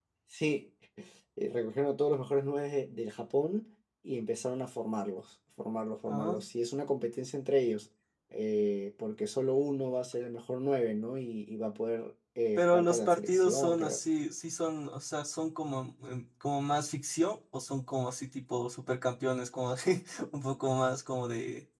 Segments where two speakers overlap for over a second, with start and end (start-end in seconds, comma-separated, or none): 12.6-14.0